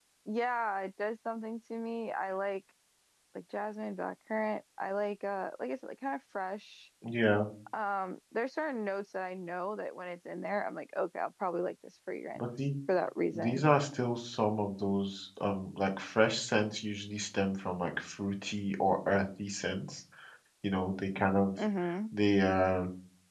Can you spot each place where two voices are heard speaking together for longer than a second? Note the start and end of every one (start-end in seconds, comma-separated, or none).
none